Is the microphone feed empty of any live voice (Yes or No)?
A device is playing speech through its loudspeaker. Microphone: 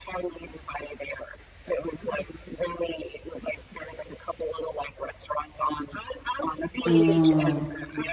No